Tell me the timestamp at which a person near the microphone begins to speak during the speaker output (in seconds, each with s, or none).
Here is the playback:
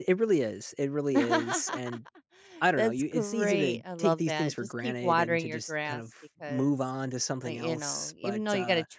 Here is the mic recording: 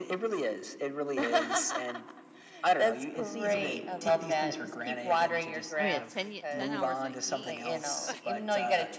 5.8 s